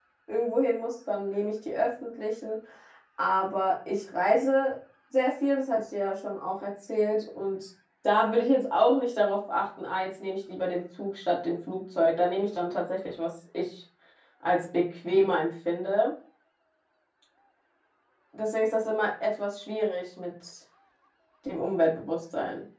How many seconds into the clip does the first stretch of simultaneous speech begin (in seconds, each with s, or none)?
none